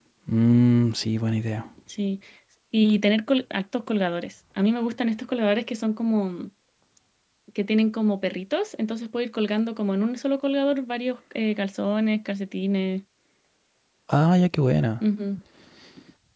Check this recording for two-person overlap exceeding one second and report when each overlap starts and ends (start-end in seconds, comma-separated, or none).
none